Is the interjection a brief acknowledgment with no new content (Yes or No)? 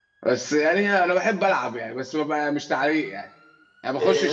No